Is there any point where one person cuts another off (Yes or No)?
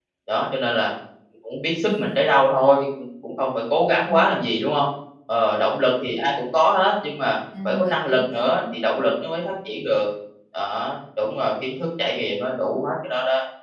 Yes